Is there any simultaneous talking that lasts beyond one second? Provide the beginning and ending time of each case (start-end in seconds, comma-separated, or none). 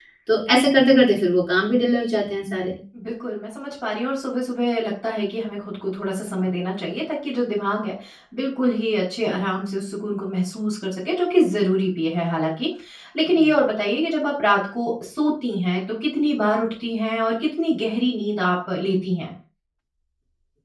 none